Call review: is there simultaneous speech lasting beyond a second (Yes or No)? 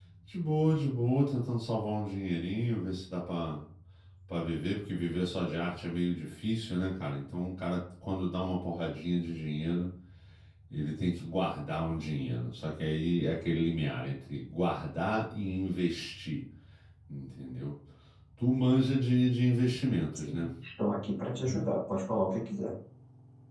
No